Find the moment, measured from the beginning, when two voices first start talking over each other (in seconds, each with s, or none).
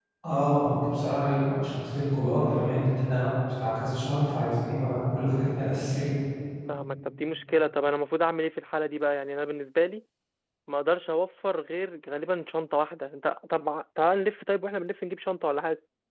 none